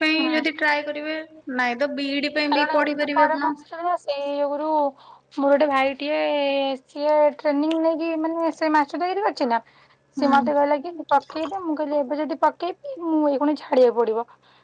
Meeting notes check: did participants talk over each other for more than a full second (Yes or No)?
No